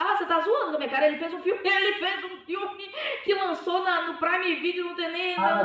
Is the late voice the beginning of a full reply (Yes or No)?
Yes